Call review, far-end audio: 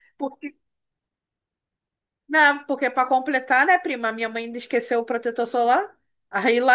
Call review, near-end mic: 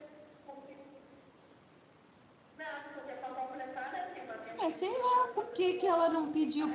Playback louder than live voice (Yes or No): No